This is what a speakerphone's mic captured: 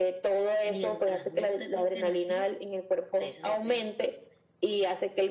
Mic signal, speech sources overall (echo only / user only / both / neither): echo only